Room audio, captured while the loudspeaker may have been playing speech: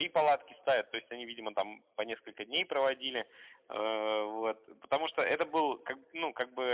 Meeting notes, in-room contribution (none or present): none